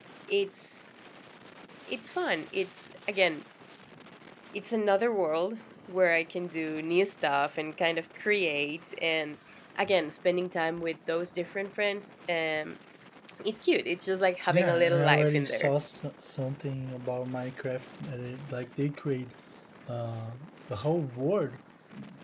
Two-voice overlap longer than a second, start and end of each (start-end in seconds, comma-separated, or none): 14.5-15.7